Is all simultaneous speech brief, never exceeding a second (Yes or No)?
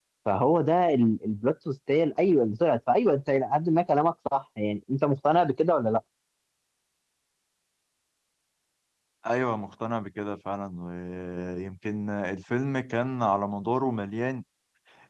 Yes